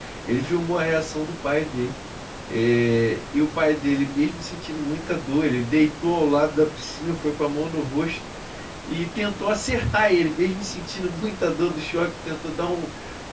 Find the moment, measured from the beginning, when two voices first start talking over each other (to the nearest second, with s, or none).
none